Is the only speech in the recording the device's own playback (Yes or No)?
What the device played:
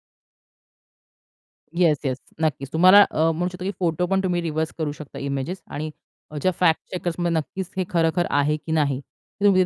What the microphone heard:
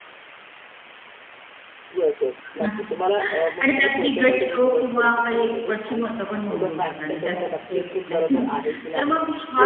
No